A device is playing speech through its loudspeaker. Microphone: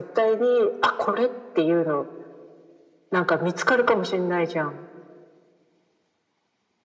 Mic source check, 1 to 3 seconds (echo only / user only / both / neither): echo only